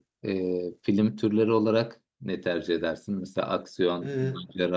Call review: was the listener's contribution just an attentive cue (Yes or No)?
Yes